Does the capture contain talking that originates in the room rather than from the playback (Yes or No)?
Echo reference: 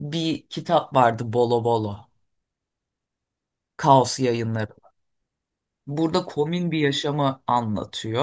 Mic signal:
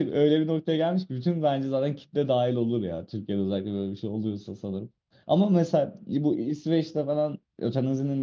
Yes